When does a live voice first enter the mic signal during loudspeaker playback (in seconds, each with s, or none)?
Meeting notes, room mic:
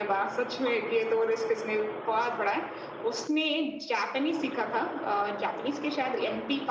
none